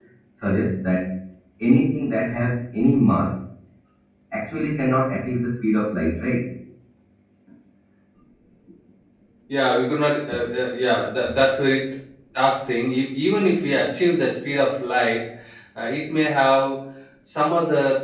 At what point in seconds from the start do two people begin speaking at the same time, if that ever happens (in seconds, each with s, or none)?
none